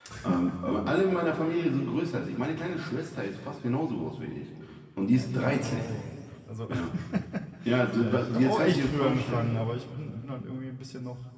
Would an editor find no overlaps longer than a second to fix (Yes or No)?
No